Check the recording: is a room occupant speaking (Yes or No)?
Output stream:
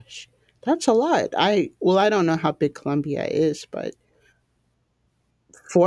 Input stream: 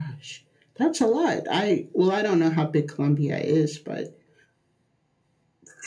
No